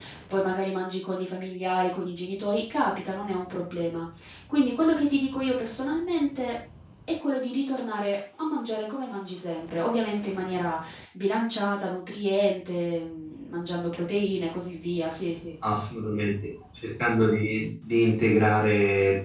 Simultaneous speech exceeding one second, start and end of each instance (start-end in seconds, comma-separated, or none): none